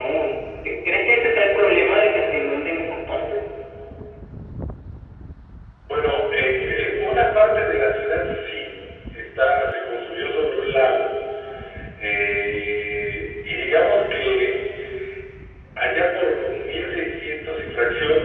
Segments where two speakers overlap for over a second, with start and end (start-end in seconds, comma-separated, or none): none